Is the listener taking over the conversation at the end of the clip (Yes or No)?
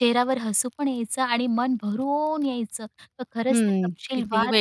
Yes